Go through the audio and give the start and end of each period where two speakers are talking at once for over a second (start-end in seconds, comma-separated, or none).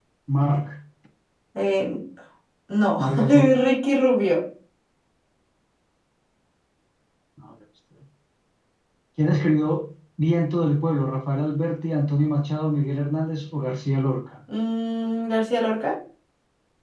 none